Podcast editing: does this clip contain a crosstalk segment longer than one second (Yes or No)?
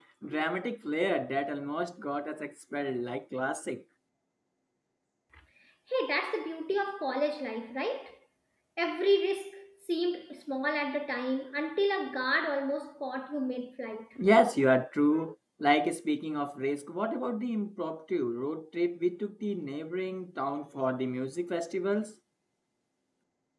No